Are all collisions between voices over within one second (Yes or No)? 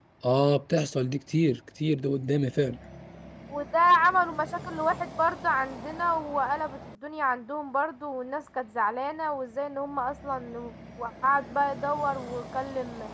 Yes